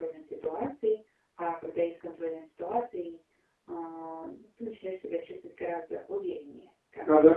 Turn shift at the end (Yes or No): Yes